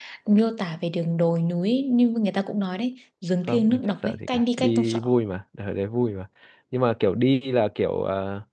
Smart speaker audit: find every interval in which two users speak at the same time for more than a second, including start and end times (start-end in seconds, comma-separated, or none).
3.5-5.0